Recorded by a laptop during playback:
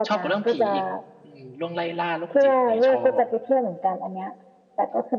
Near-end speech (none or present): present